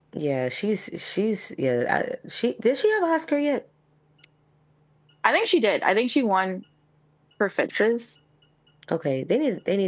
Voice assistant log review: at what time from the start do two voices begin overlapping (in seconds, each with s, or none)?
none